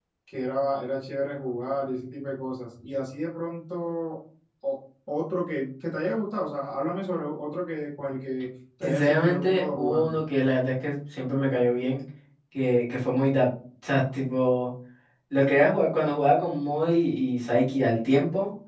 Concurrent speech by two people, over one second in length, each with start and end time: 8.8-10.2

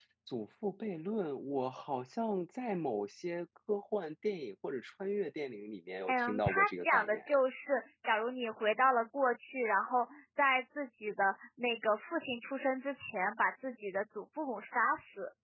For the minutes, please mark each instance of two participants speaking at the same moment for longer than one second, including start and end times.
6.1-7.4

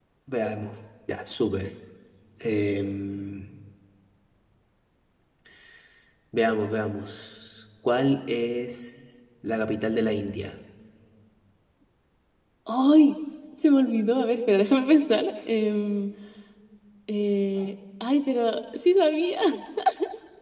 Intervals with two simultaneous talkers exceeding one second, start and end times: none

